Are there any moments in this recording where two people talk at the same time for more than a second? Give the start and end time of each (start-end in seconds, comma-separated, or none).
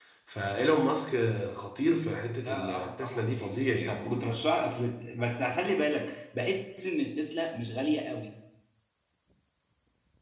2.4-4.0